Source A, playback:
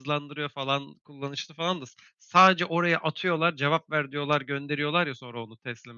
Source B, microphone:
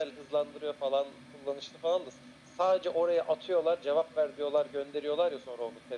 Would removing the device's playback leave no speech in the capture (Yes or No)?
Yes